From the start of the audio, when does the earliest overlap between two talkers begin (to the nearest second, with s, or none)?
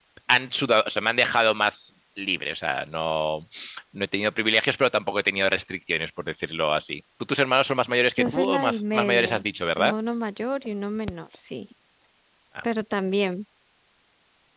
8 s